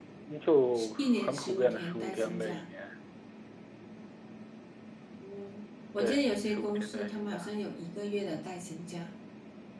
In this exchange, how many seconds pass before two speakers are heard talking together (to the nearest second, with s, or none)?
1 s